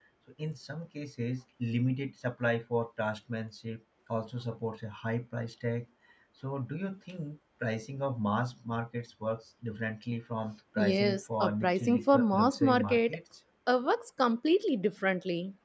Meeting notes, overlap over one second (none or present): present